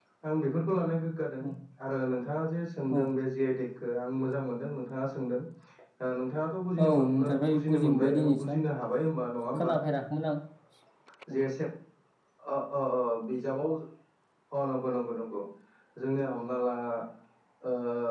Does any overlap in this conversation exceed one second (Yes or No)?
Yes